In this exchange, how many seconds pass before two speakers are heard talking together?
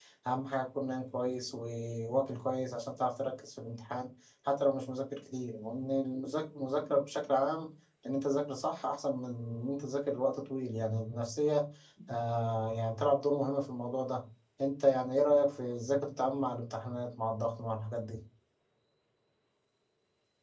none

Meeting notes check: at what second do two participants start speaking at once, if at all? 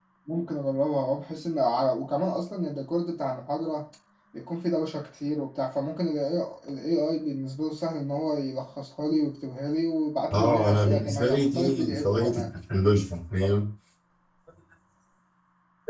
10 s

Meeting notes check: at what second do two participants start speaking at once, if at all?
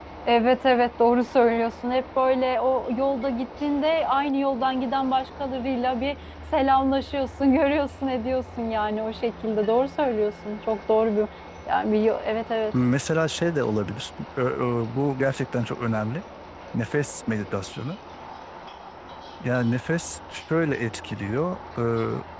none

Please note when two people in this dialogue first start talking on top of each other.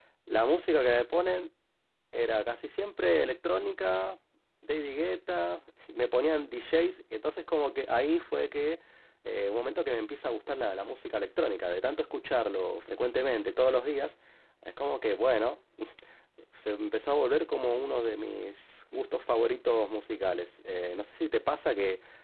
none

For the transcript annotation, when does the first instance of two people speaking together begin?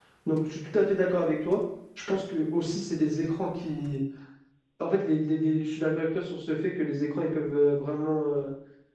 none

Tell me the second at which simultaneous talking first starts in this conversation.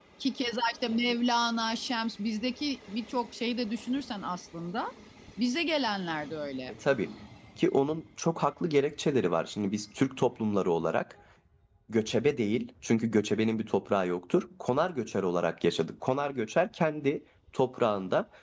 none

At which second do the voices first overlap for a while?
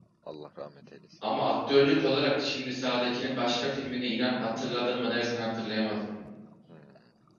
none

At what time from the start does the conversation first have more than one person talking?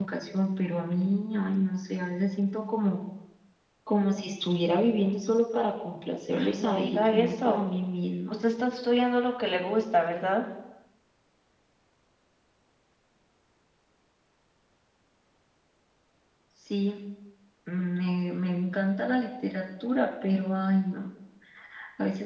6 s

